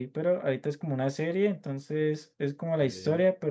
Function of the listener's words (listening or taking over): listening